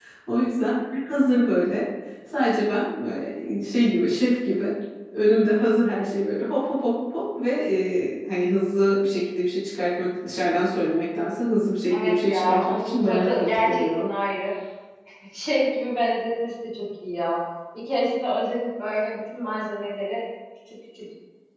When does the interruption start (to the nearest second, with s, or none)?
12 s